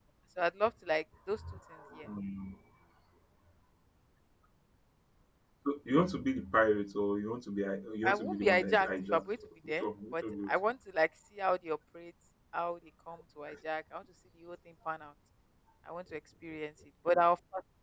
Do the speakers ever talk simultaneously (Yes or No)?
Yes